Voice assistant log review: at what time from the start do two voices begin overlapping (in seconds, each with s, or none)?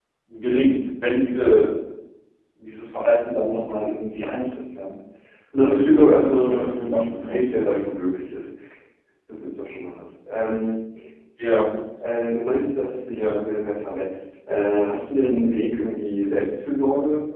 5.6 s